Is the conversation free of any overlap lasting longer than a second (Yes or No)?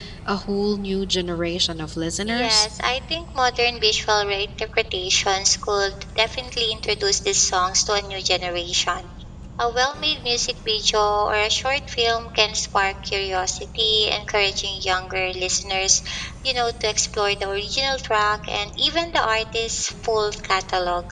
Yes